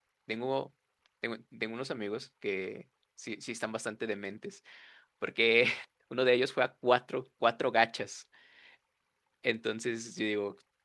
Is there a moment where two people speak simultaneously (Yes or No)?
No